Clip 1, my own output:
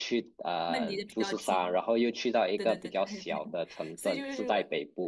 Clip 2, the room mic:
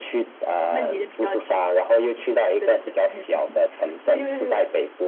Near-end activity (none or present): none